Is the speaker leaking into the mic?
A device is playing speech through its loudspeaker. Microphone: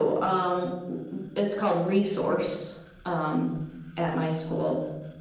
Yes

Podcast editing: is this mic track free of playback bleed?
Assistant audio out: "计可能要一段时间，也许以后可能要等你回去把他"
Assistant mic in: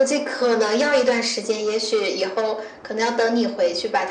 No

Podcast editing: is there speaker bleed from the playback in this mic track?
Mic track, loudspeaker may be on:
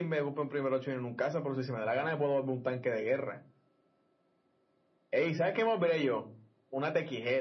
Yes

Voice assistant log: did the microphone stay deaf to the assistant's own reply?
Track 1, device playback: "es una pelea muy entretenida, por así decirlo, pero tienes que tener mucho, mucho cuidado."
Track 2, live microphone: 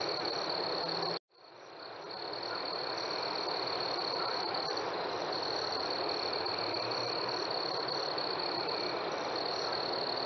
Yes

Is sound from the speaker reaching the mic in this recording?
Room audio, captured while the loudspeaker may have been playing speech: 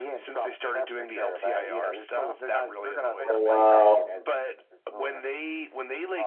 Yes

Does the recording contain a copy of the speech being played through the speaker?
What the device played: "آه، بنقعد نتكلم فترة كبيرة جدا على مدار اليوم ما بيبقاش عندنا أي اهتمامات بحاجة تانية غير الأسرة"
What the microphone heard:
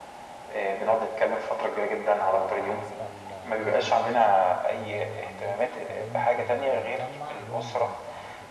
Yes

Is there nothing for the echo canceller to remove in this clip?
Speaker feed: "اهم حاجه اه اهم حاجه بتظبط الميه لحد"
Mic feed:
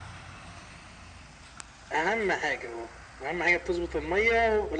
No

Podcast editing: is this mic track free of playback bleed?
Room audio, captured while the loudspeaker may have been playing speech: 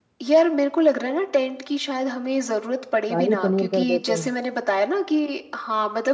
No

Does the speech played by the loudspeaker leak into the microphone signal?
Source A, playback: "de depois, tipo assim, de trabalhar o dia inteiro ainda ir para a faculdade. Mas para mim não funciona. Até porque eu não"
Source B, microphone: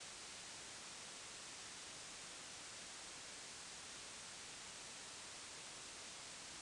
No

